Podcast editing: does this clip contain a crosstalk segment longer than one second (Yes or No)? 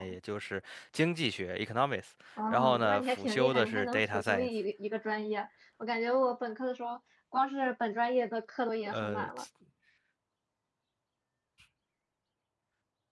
Yes